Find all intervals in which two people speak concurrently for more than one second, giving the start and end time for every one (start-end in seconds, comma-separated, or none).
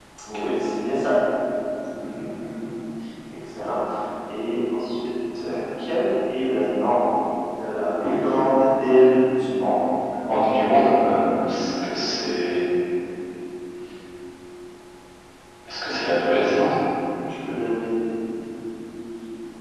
none